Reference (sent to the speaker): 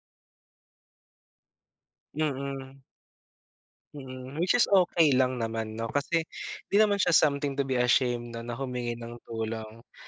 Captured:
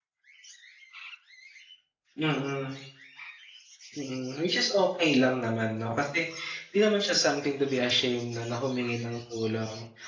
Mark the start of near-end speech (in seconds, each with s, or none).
none